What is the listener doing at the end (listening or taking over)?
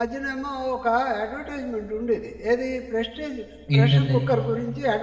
listening